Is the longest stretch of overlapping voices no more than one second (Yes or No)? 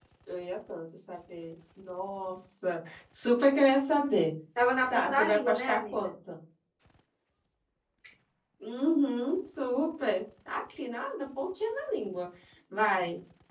No